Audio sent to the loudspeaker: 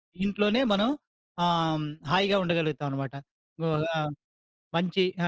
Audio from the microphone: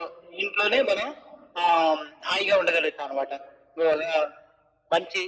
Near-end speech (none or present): none